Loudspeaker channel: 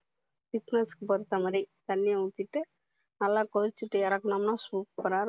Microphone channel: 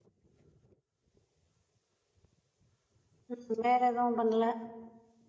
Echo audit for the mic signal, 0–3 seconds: neither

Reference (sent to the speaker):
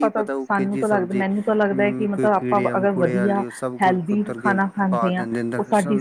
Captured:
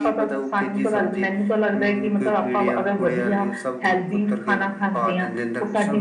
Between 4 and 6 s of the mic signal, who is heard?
echo only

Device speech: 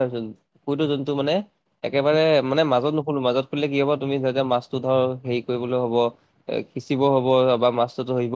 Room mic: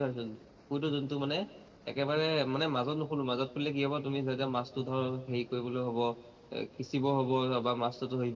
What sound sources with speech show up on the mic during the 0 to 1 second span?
echo only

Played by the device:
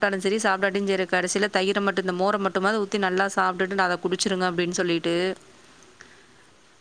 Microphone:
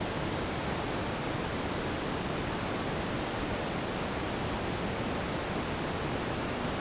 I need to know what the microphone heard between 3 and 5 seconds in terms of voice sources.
neither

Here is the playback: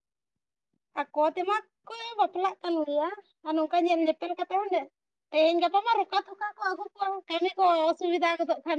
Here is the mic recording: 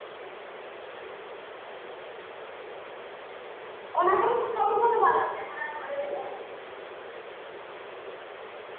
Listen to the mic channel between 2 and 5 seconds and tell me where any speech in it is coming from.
user only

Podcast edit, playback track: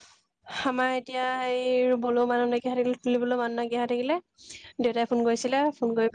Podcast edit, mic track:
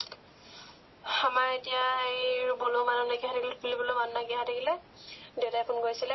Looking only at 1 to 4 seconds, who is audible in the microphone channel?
echo only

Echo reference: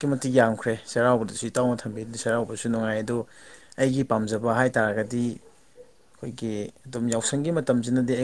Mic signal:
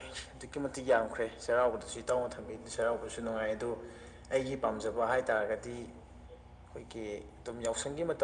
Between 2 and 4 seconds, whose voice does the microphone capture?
echo only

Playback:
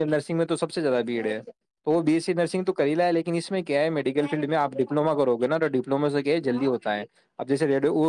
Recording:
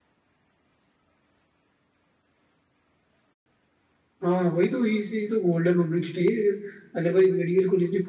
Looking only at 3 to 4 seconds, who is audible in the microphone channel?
neither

